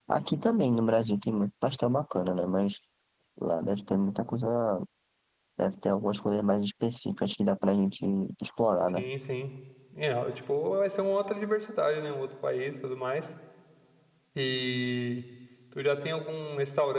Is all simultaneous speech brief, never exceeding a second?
Yes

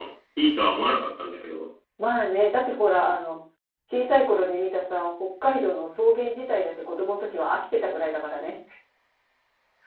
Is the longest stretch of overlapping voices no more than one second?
Yes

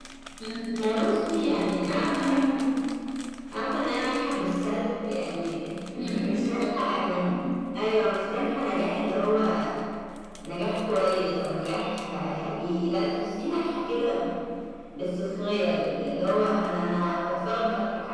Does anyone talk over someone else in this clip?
Yes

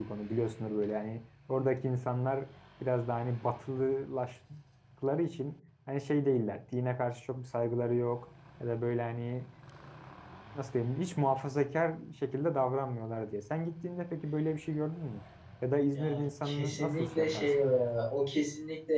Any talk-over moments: Yes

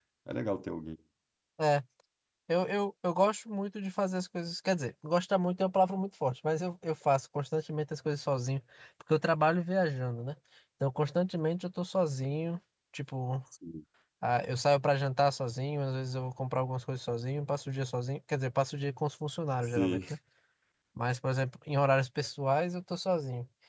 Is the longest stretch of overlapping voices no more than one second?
Yes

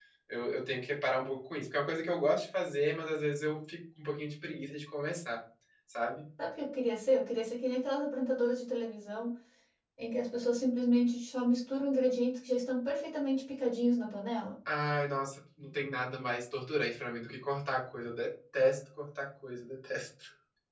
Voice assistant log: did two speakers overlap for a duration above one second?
No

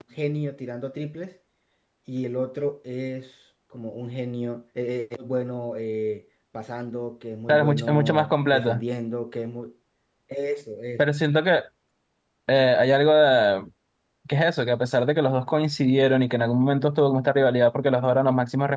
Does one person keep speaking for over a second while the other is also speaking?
Yes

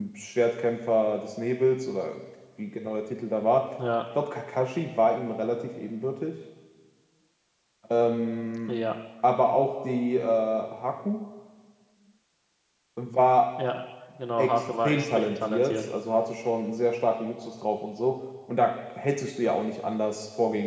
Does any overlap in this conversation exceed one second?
Yes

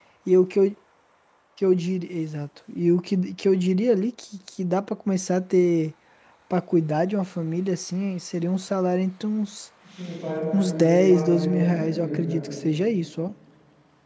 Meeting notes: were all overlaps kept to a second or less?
No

